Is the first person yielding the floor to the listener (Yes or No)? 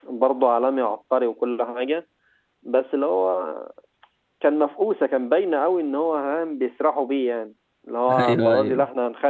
No